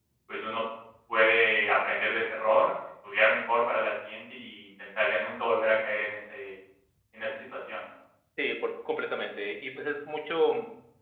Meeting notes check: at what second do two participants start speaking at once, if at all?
none

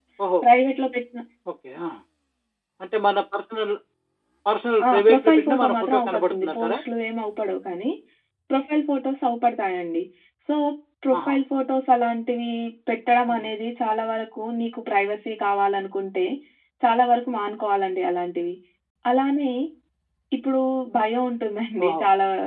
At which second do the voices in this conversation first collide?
4.9 s

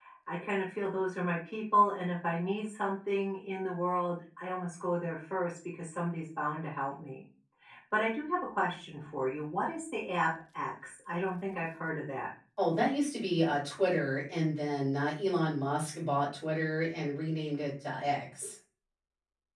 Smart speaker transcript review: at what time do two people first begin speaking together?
none

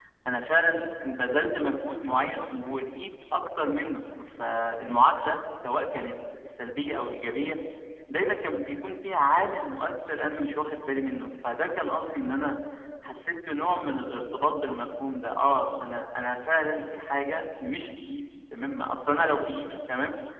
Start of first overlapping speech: none

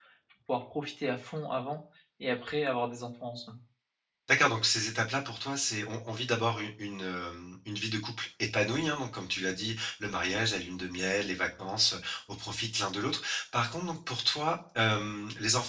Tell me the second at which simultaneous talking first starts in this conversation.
none

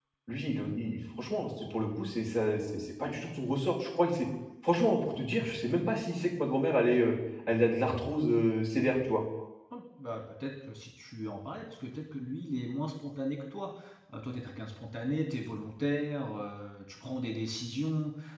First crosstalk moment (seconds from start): none

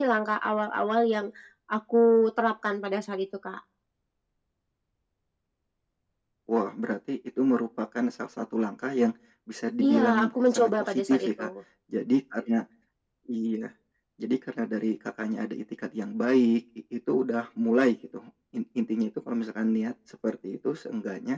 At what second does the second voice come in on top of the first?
9.9 s

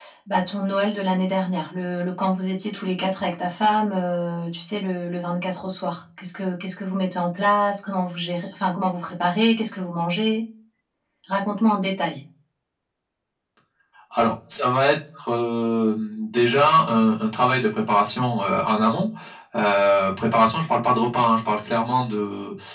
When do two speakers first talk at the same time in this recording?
none

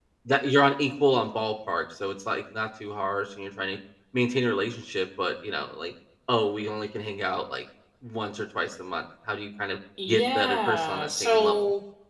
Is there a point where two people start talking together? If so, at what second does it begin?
10.0 s

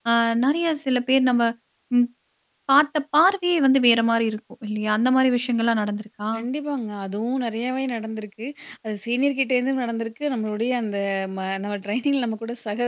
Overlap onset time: none

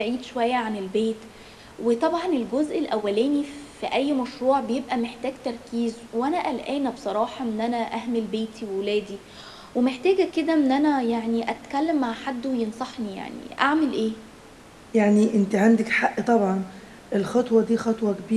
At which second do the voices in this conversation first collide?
none

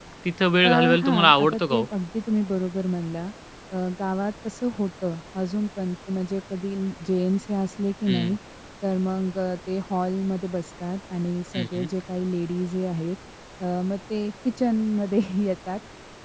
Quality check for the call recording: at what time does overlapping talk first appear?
0.6 s

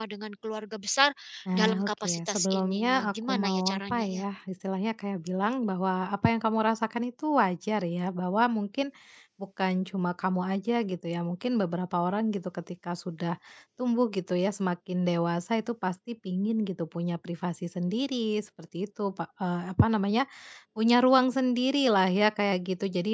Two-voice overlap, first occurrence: 1.6 s

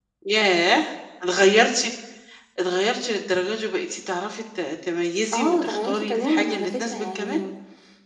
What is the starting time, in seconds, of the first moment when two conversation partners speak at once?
5.3 s

